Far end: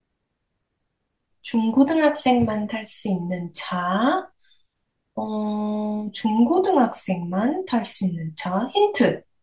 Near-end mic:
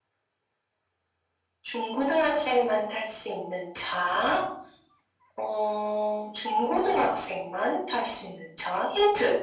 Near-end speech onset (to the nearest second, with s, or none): none